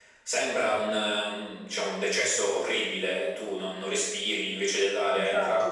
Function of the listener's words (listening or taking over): listening